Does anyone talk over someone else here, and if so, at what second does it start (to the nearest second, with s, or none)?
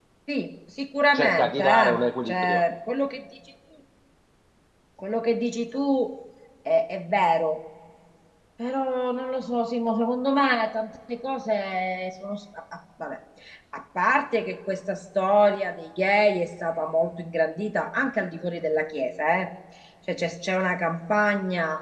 1 s